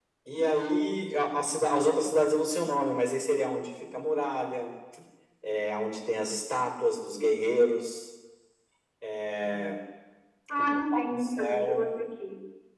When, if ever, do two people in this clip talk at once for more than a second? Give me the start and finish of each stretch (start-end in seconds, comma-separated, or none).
10.6-11.9